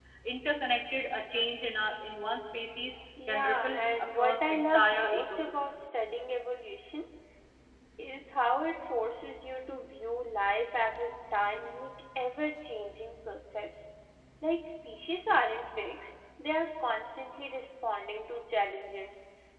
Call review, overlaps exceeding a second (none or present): present